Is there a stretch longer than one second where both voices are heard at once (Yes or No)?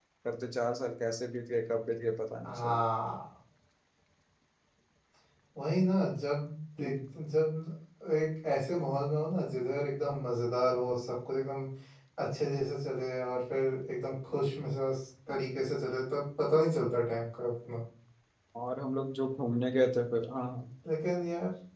No